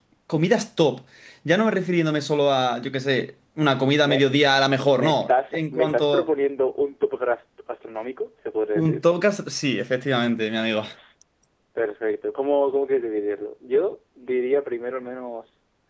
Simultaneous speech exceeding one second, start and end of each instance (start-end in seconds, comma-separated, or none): 4.9-6.2